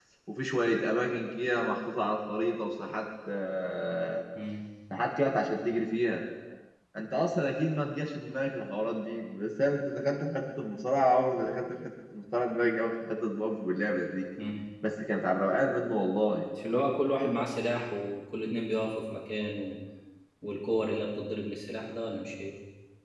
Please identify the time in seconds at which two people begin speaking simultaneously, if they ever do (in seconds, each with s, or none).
none